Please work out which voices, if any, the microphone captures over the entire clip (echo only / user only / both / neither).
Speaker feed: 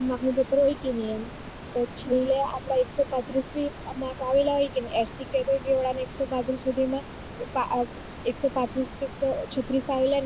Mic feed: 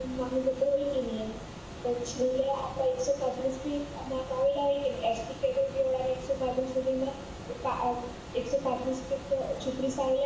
echo only